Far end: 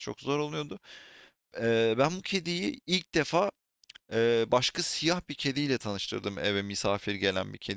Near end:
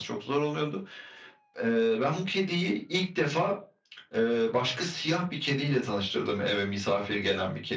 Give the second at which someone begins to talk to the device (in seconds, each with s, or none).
none